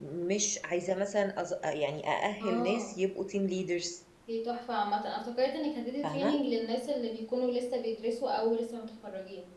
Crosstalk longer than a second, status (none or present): none